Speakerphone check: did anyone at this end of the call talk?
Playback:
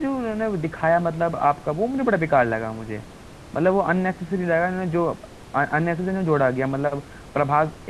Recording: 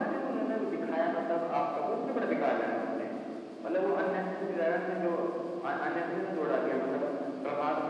No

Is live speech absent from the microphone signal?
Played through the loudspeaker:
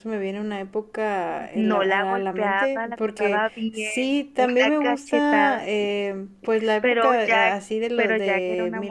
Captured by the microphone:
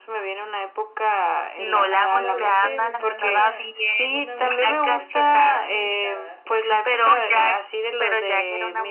No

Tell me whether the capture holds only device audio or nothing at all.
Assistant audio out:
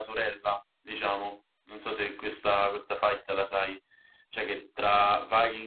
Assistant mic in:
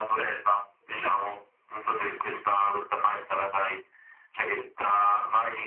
Yes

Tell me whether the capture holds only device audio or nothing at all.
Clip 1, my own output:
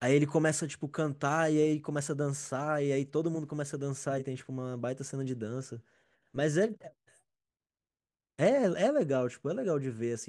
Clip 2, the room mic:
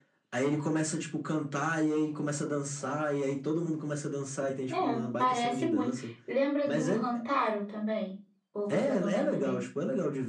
No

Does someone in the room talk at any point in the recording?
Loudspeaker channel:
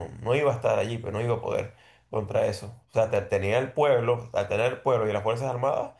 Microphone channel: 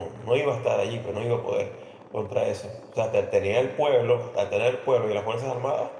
No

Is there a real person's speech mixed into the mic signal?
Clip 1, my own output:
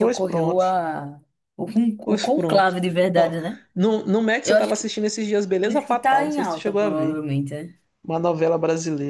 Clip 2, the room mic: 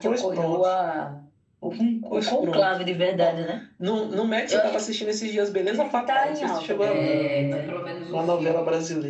Yes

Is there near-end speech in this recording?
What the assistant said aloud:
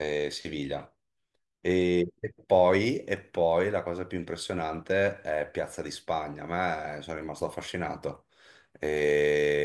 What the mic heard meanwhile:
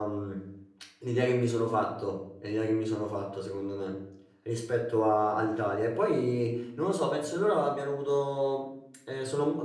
Yes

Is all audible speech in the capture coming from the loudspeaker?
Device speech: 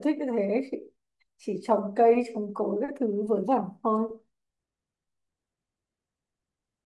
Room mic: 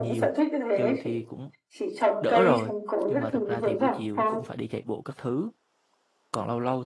No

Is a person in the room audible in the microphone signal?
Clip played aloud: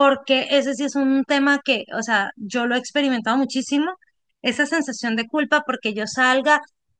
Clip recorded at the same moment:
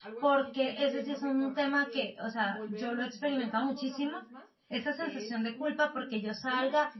Yes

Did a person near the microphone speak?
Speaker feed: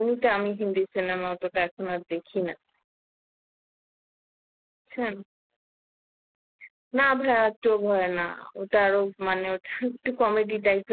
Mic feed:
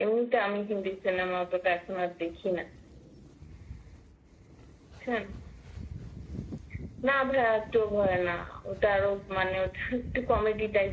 No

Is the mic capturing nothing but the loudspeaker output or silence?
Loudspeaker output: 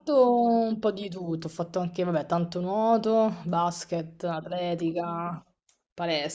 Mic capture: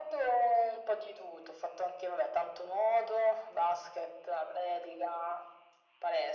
Yes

